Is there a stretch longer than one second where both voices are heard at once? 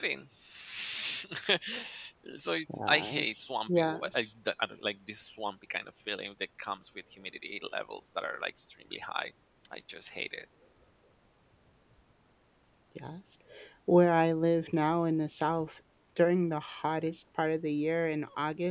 Yes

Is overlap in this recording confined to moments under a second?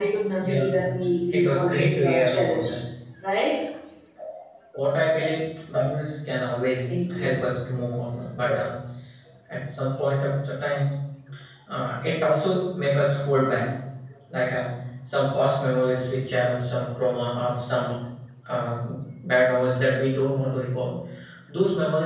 No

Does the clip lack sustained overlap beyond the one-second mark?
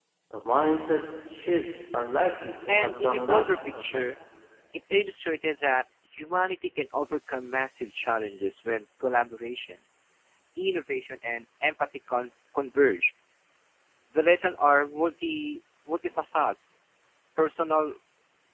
No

